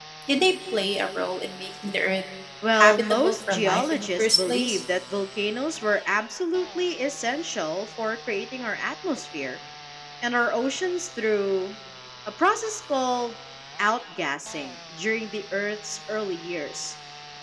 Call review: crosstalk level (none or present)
present